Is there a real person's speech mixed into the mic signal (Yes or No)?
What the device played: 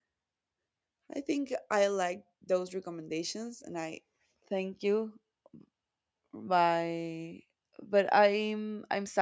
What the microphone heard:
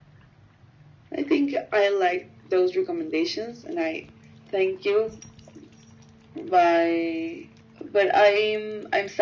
No